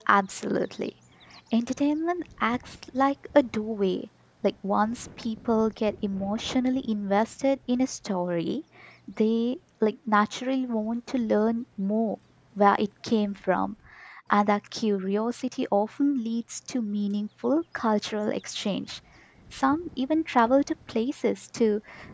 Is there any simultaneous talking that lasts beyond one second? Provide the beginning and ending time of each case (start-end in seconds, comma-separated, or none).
none